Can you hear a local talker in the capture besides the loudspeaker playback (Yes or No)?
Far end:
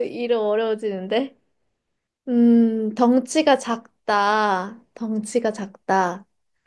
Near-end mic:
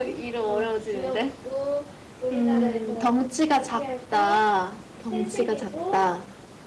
Yes